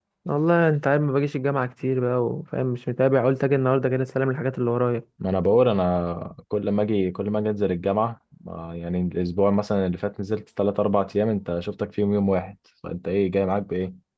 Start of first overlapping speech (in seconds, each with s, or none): none